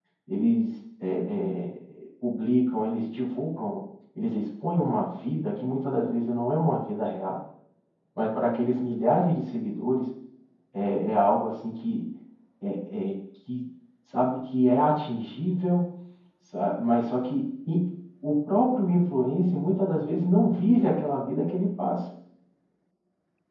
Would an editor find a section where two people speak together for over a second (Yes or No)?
No